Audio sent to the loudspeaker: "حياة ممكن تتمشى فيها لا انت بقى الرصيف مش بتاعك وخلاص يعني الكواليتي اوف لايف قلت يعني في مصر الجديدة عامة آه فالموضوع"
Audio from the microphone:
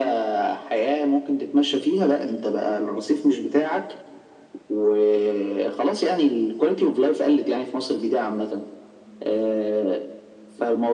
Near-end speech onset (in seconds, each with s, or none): none